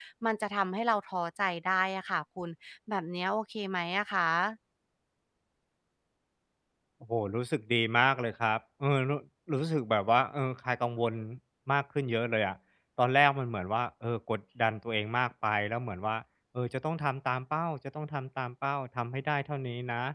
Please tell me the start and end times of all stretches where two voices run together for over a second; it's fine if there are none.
none

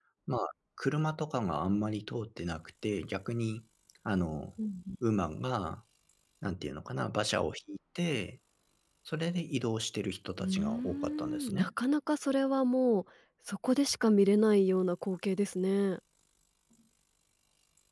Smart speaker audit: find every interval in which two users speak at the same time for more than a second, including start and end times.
10.4-11.7

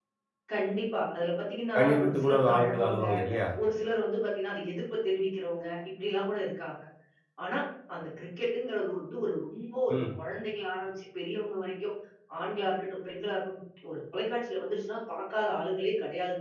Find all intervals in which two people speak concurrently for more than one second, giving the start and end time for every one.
1.8-3.0

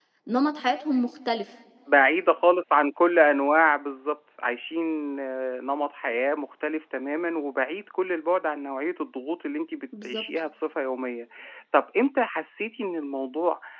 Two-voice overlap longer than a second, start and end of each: none

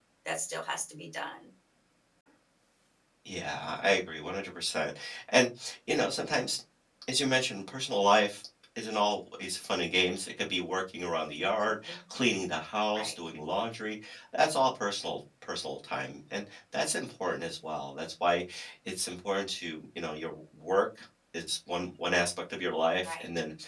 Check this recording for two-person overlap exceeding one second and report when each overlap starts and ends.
none

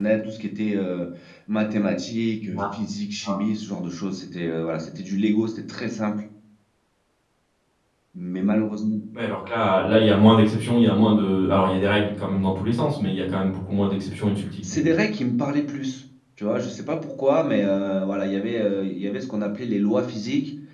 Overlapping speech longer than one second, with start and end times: none

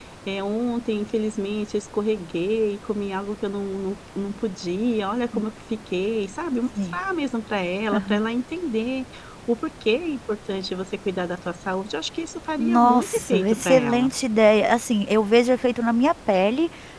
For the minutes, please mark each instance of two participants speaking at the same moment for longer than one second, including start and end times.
12.6-14.1

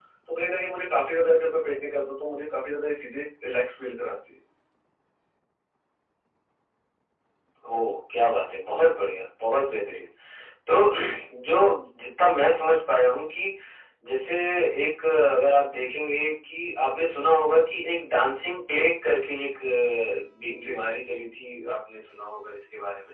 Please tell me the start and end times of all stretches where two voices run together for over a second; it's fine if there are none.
none

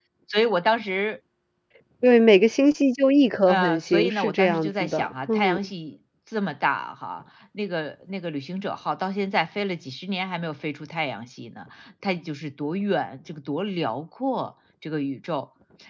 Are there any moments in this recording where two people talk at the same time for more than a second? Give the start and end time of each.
3.5-5.6

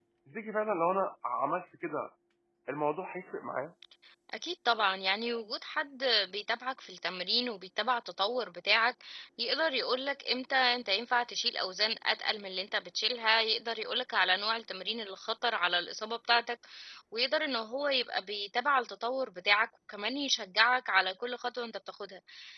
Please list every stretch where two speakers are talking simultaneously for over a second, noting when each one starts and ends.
none

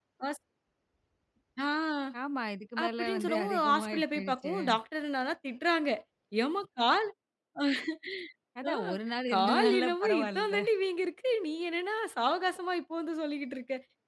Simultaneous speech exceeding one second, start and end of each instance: 2.8-4.5, 9.3-10.5

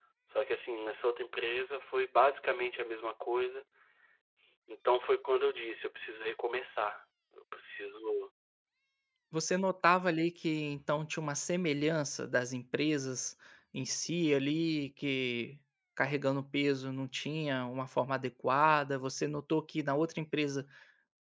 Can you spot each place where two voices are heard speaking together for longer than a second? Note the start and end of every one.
none

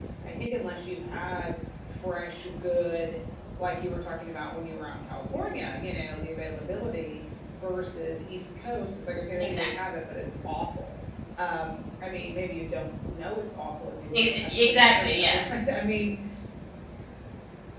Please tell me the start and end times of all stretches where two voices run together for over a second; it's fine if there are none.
14.2-15.4

